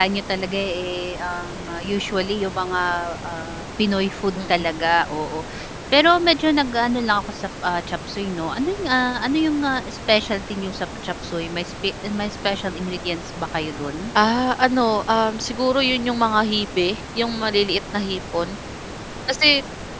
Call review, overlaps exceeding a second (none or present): none